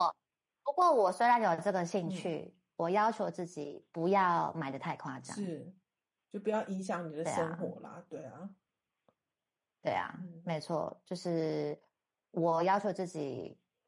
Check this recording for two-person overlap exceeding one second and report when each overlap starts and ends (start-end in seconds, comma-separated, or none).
none